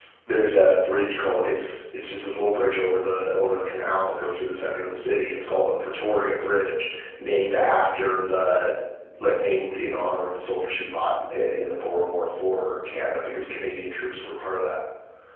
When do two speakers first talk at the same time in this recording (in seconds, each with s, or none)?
none